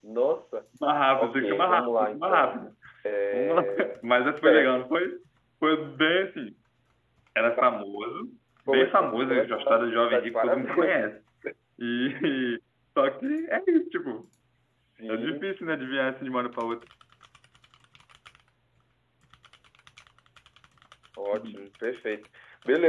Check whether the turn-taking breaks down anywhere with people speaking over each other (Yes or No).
Yes